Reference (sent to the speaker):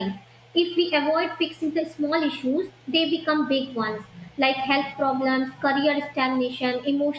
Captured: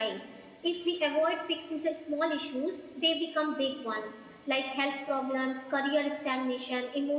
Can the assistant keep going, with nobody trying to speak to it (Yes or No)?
Yes